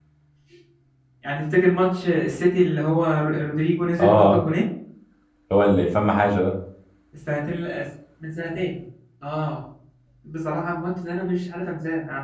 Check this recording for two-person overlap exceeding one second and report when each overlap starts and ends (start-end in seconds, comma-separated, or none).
none